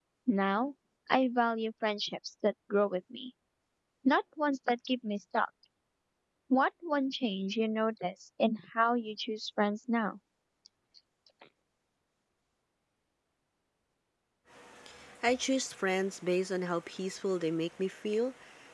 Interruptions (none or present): none